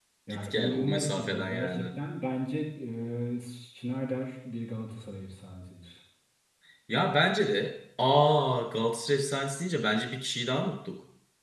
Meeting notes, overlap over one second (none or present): present